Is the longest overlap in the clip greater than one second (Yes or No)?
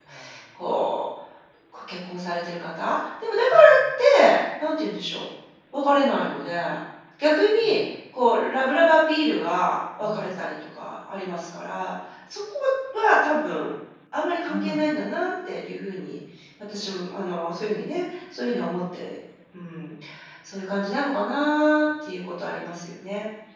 No